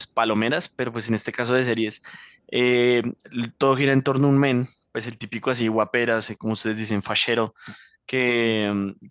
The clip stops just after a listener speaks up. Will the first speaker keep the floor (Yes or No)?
Yes